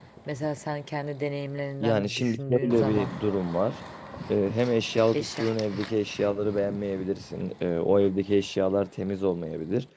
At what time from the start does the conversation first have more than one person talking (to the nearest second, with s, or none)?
2 s